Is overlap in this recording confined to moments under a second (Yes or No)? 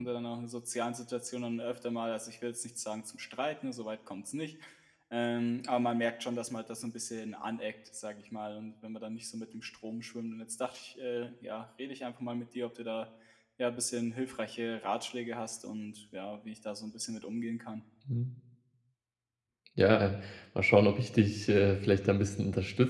Yes